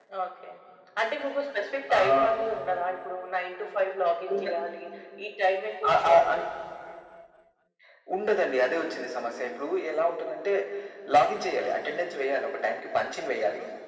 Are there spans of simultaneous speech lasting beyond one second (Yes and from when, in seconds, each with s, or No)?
No